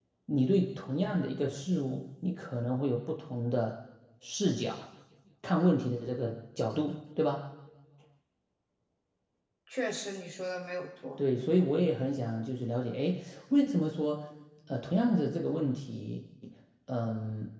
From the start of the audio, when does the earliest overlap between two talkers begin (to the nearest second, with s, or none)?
none